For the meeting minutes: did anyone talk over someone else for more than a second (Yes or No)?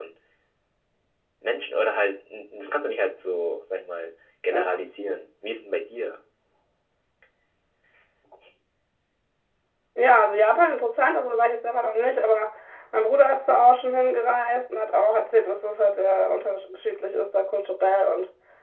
No